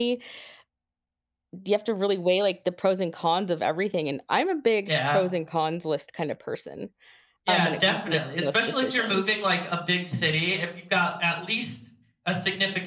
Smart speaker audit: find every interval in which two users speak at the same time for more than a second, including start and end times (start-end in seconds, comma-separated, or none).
7.5-9.2